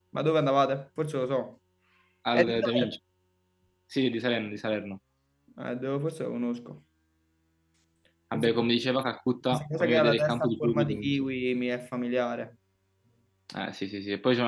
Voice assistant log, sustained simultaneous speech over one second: present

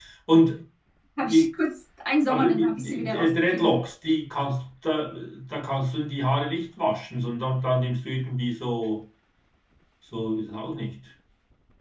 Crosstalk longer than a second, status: present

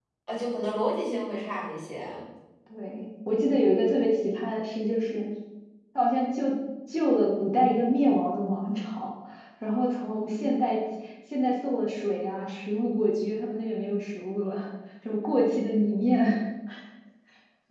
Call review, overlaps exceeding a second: none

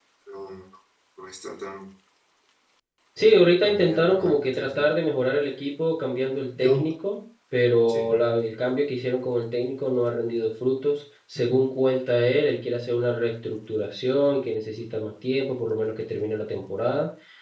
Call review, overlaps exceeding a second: present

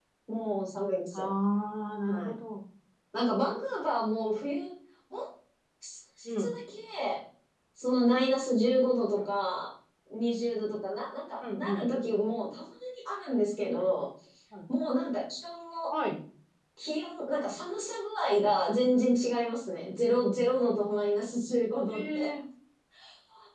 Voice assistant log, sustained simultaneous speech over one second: none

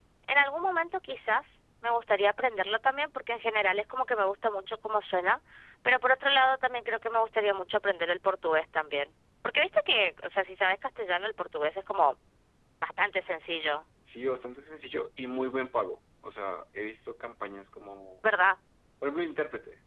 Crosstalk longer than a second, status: none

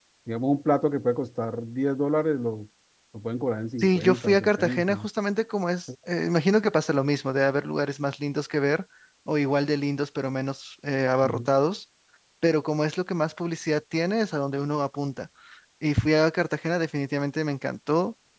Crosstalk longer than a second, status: present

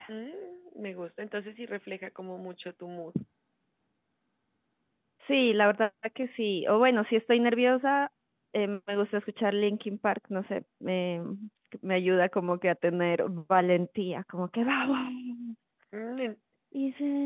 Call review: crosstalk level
none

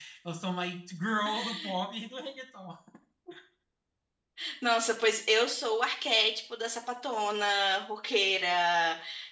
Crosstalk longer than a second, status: none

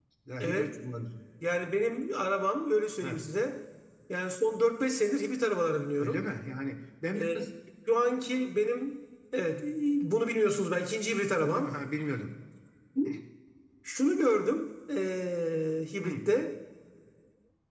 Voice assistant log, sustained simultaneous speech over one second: none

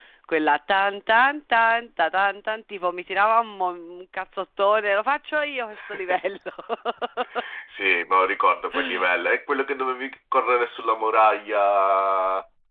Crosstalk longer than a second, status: none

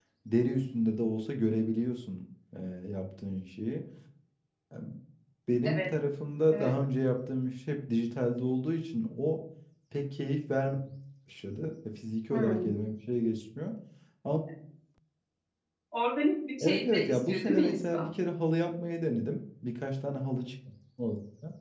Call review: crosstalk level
present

